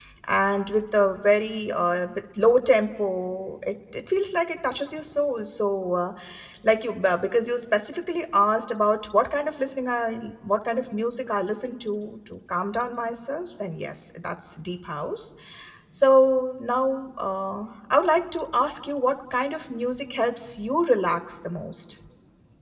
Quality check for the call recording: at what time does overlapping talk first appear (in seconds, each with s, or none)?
none